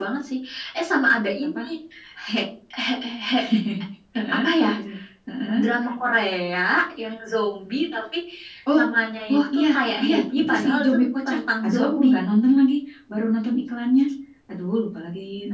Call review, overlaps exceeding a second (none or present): present